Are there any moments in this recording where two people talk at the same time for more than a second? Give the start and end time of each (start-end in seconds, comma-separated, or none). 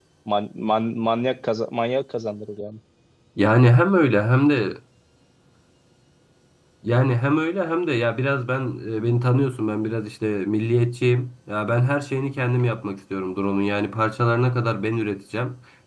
none